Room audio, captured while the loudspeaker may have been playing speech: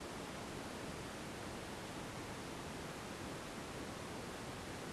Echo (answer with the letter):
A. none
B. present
A